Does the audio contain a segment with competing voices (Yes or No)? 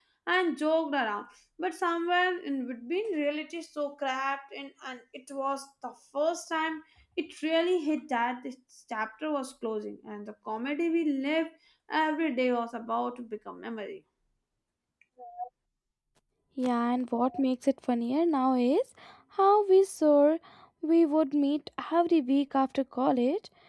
No